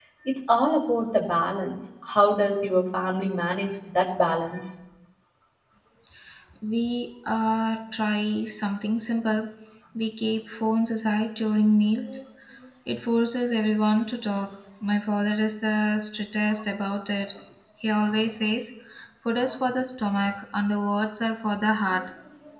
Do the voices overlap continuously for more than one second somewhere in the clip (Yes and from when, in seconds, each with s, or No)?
No